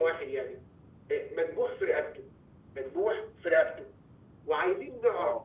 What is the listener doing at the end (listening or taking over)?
listening